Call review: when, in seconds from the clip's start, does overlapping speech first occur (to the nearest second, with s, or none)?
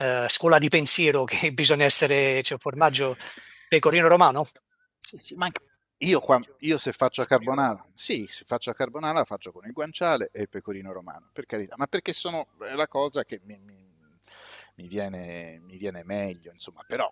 none